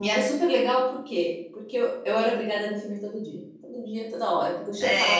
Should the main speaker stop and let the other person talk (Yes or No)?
Yes